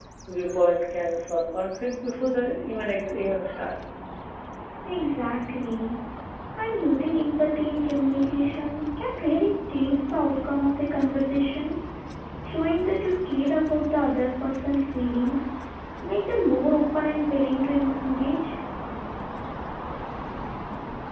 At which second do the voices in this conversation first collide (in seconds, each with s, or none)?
none